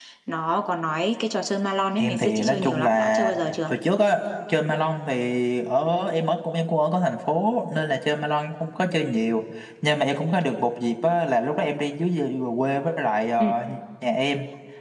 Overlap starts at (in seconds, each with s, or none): 1.9 s